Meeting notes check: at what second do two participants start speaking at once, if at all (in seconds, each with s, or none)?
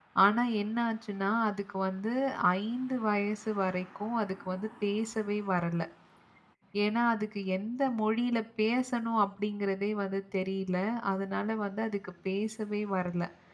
none